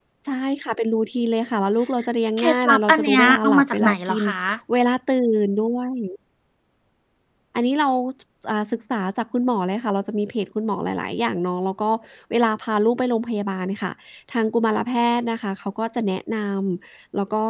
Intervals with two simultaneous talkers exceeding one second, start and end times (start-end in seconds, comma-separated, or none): 2.4-4.2